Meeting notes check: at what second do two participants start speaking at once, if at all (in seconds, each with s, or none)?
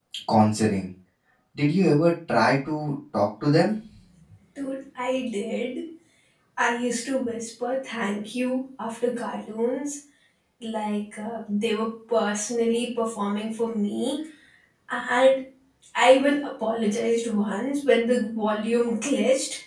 none